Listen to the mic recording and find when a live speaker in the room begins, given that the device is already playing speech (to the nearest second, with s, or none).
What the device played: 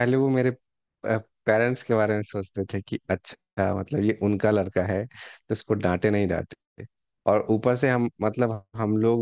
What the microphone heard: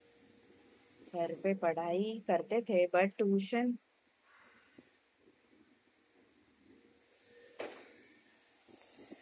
1 s